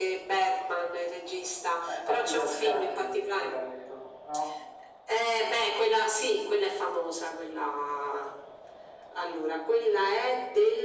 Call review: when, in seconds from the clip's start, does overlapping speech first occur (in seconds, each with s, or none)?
1.9 s